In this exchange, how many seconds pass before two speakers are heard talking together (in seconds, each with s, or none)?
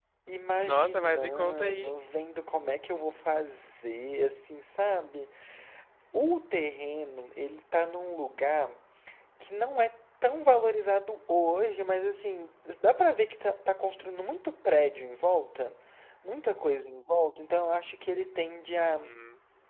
0.6 s